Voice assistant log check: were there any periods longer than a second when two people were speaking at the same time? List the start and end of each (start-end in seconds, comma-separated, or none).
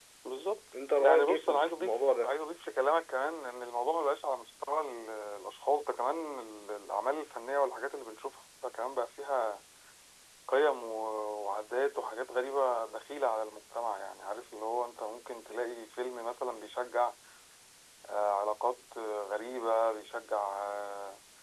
1.0-2.3